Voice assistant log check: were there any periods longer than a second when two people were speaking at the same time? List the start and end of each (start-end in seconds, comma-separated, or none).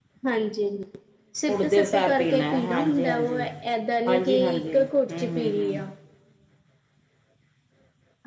1.5-3.4, 4.1-5.8